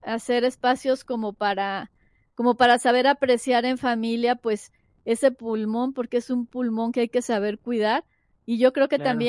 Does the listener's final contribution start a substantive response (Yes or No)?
No